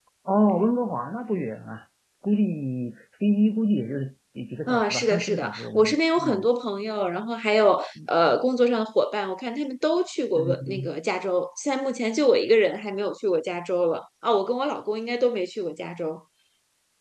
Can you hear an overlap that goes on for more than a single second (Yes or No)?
Yes